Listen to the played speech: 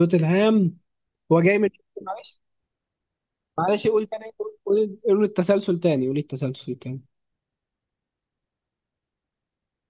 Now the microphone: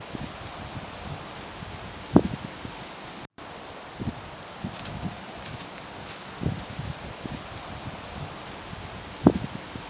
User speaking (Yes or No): No